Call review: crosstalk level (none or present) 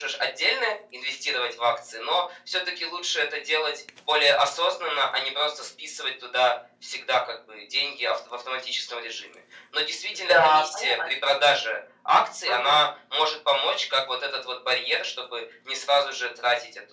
present